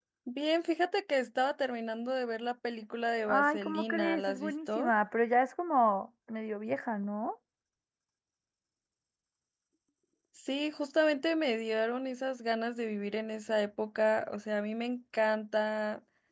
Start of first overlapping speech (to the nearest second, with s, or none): 3 s